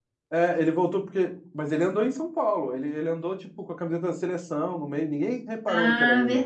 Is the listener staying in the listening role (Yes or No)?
No